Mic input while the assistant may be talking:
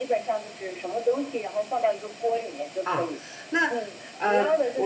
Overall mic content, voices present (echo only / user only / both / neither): both